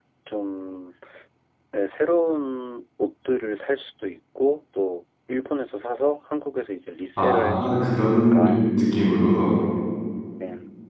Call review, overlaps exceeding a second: present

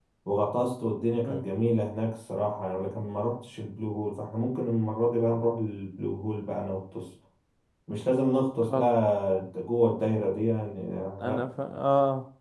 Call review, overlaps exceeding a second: none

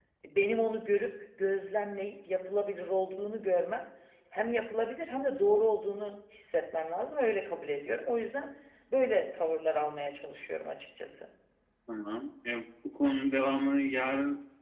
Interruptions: none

